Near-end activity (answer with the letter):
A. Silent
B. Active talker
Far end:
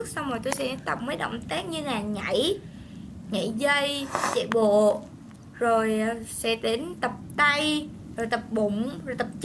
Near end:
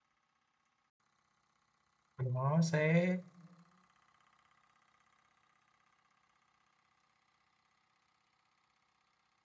B